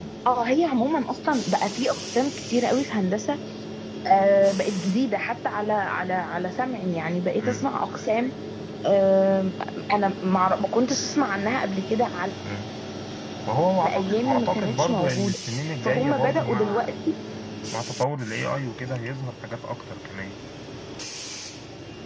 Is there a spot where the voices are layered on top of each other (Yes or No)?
Yes